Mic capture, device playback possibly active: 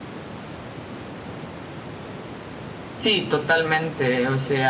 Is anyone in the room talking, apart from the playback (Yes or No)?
Yes